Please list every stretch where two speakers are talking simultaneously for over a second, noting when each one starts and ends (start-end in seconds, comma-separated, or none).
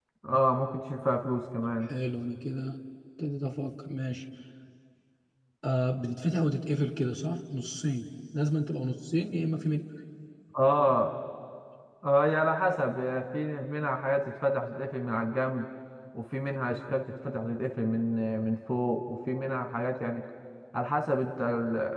none